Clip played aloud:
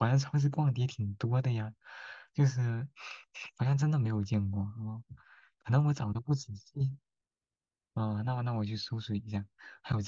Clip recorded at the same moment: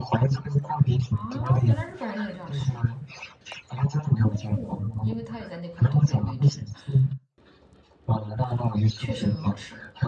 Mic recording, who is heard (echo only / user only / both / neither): both